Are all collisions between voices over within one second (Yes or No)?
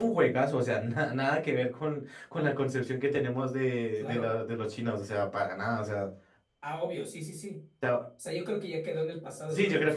Yes